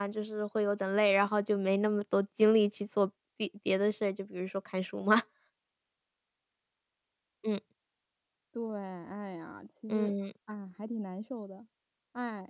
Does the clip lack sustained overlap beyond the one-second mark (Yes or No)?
Yes